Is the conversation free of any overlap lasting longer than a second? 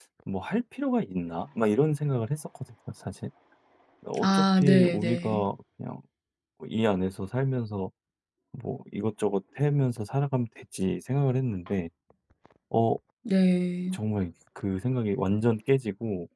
No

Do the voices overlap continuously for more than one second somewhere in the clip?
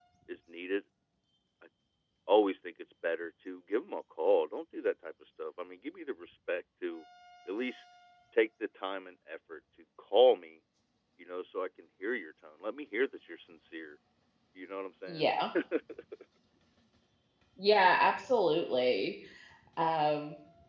No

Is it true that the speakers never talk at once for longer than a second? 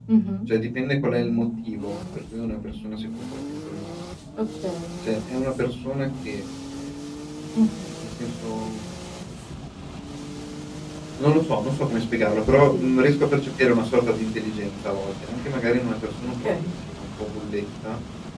Yes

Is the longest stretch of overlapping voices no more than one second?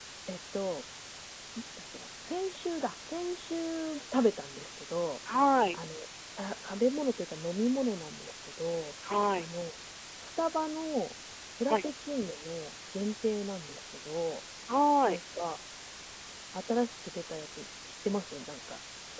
Yes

